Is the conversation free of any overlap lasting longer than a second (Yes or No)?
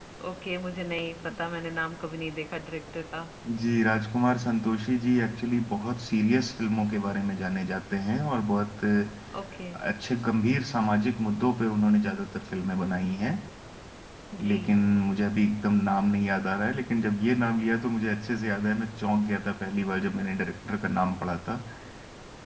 Yes